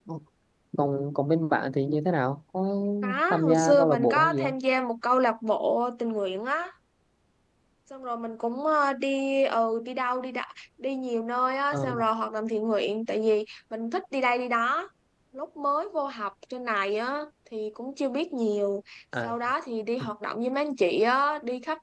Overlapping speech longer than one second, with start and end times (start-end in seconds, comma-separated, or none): 3.3-4.5